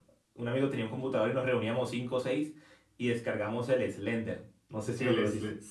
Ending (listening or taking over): taking over